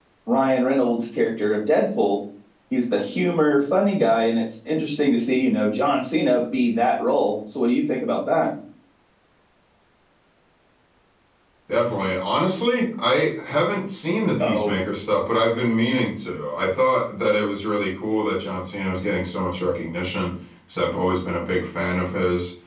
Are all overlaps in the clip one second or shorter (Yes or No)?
Yes